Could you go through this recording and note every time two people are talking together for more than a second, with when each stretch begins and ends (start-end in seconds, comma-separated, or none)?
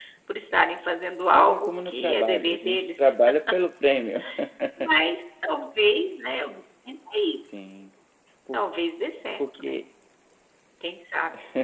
1.3-3.1